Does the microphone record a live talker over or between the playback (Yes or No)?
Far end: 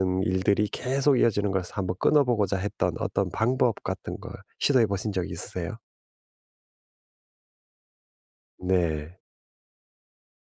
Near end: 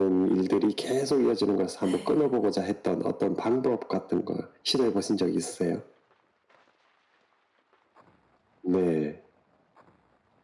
Yes